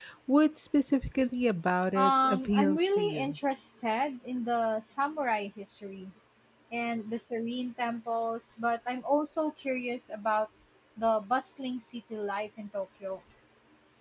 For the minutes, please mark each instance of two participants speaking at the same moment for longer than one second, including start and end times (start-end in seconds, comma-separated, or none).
1.9-3.4